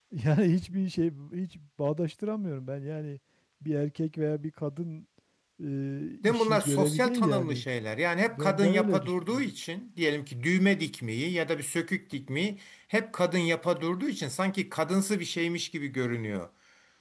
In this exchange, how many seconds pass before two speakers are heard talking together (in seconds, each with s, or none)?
6.2 s